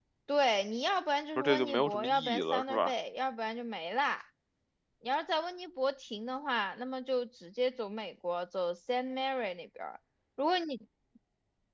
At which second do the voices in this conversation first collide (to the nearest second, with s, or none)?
1 s